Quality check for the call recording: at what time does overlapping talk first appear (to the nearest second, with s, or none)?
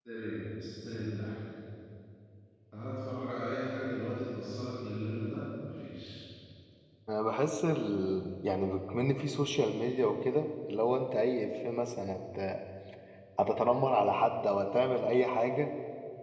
none